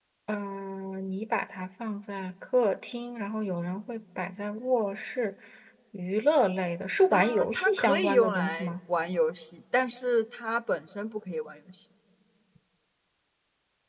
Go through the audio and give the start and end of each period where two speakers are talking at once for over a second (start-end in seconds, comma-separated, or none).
7.1-8.8